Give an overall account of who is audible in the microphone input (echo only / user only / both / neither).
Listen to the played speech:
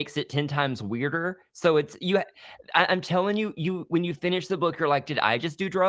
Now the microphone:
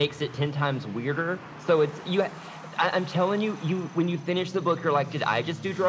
echo only